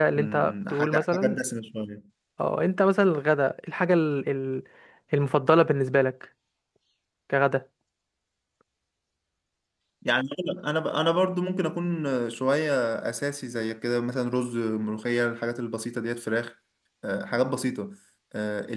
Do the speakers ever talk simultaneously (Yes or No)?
Yes